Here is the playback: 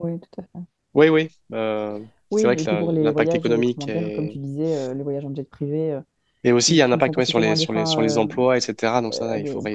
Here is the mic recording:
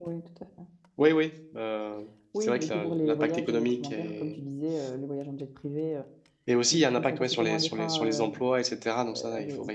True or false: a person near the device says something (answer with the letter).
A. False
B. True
A